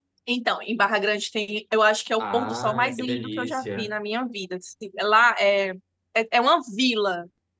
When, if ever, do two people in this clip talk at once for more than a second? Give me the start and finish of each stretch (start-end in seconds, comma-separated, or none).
2.2-3.9